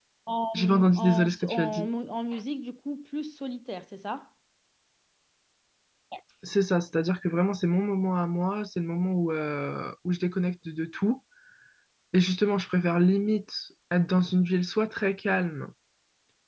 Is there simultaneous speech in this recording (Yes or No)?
Yes